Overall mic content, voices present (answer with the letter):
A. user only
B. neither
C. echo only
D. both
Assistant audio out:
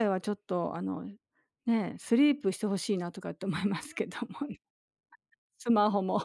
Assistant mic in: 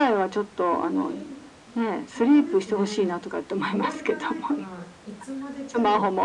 D